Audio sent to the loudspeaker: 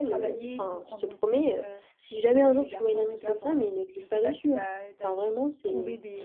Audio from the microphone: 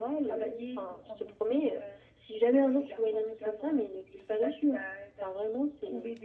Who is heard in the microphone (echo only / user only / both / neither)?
echo only